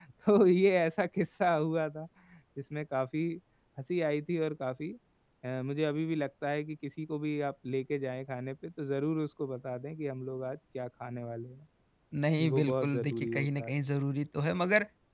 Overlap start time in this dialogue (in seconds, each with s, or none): 12.5 s